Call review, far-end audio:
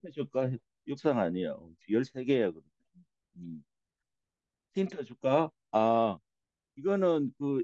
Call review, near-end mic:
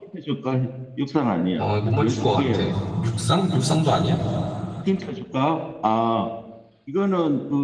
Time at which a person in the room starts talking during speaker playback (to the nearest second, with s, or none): 2 s